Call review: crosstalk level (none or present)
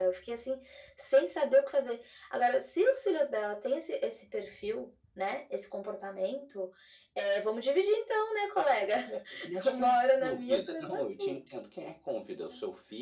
present